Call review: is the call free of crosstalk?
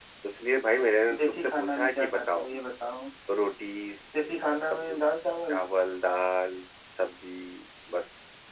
No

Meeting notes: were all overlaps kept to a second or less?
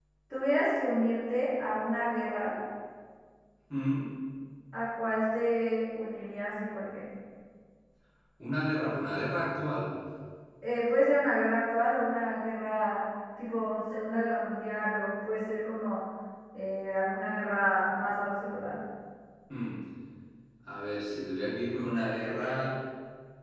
Yes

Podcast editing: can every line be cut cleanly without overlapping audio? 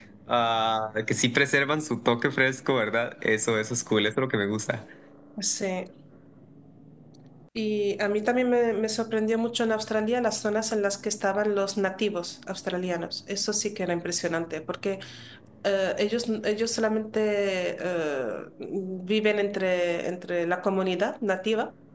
Yes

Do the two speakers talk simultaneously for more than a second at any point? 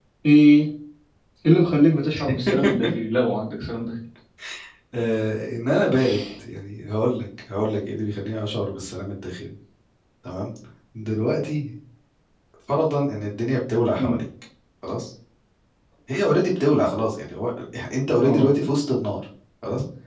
No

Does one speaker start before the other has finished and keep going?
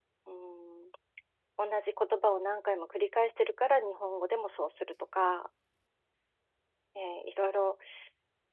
No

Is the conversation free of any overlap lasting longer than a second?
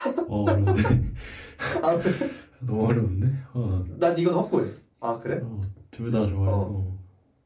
Yes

